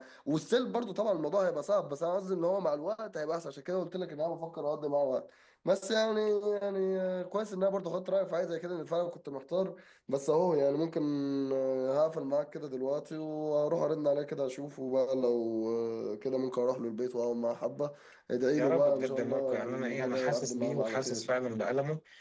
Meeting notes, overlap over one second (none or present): present